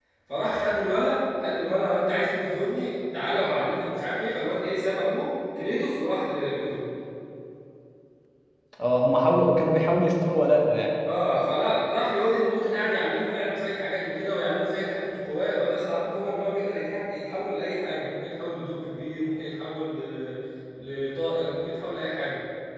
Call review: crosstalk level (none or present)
none